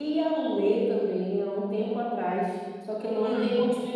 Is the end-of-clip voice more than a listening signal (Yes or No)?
No